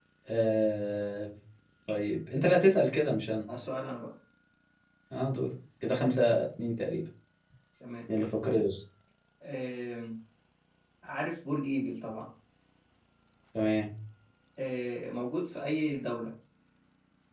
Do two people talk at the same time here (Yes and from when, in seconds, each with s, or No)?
No